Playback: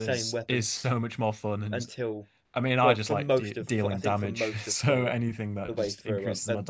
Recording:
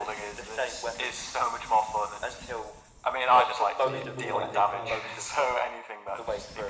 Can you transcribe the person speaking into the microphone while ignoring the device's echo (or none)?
so much more like how